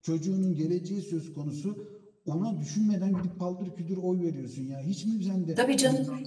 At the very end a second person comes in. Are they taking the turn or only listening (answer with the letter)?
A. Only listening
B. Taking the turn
B